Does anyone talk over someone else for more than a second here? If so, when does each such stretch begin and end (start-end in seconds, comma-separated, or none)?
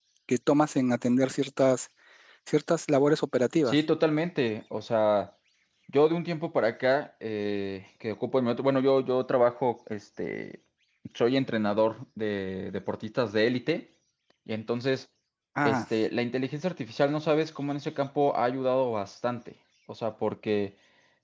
none